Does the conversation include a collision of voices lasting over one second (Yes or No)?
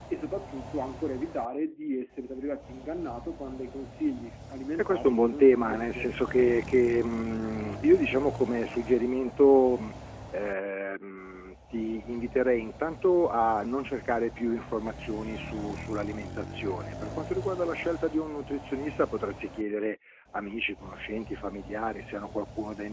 Yes